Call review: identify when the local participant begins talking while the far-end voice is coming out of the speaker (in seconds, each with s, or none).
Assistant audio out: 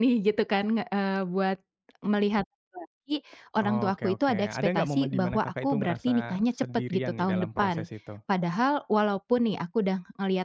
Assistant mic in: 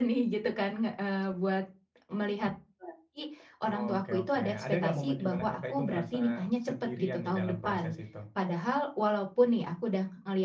none